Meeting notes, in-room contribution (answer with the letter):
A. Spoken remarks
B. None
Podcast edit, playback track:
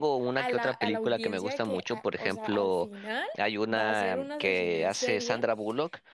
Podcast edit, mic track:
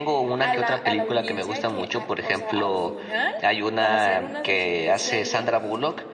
B